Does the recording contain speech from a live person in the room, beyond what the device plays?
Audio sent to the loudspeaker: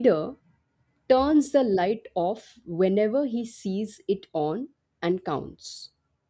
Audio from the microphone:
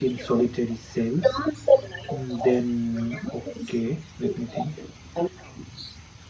Yes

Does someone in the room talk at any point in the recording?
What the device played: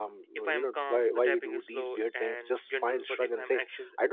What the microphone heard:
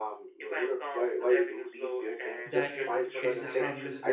Yes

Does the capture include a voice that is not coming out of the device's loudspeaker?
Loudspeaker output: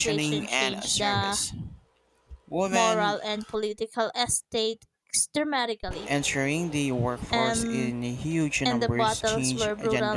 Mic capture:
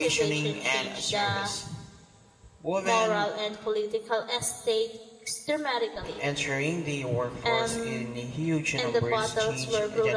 No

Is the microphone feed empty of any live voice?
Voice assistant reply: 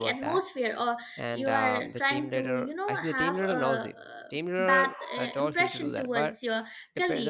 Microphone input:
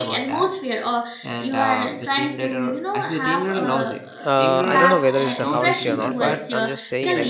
No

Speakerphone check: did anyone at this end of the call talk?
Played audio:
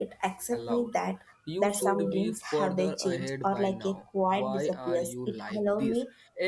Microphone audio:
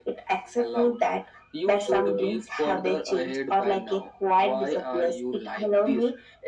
No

